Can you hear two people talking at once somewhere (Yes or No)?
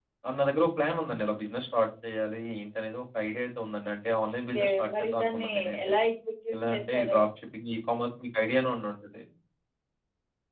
Yes